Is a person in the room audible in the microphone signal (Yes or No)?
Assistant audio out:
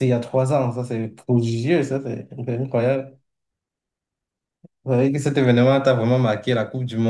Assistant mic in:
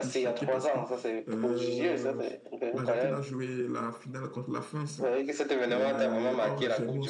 Yes